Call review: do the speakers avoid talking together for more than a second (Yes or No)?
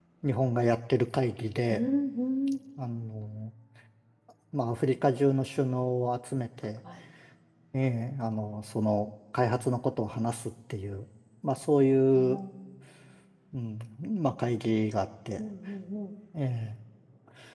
Yes